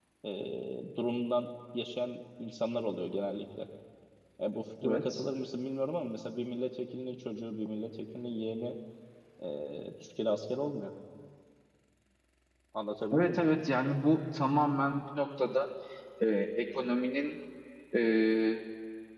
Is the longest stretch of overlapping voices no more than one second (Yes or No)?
Yes